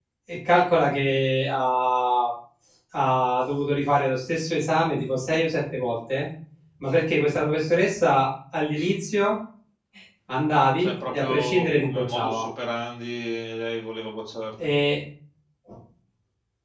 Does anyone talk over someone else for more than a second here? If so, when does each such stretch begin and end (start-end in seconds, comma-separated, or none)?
10.8-12.4